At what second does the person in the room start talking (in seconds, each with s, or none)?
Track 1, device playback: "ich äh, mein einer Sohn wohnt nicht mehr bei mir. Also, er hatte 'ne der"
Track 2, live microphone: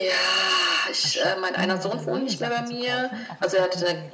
1.0 s